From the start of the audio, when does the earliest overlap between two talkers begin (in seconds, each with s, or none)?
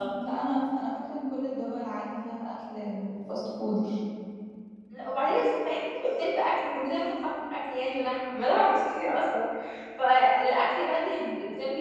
none